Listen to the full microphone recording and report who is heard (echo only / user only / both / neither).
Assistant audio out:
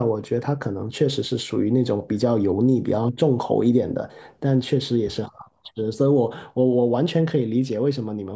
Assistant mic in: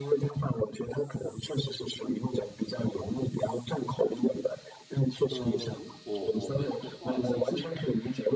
both